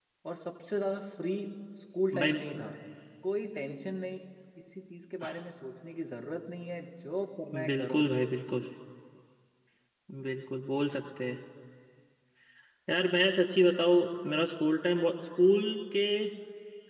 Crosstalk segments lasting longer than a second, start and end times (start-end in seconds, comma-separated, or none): none